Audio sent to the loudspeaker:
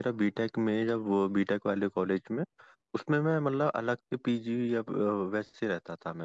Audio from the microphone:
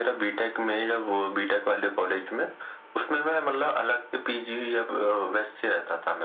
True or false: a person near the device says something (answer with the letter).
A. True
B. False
B